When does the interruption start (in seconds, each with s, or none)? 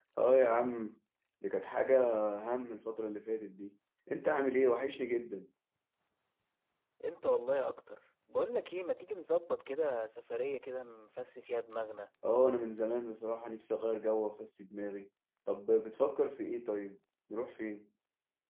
none